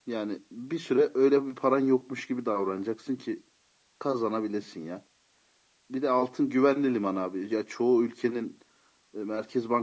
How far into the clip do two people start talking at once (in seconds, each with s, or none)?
none